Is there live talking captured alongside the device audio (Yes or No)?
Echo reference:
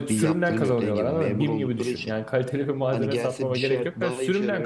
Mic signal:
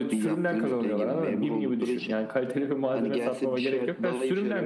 No